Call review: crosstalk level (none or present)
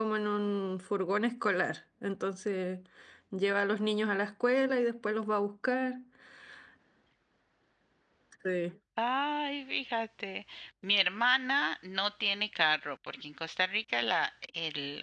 none